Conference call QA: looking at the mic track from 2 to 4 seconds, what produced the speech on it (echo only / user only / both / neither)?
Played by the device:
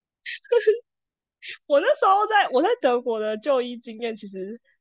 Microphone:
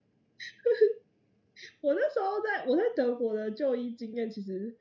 echo only